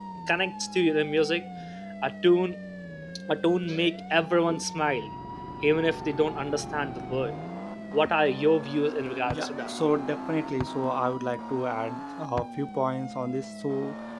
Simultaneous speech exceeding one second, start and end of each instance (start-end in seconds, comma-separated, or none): none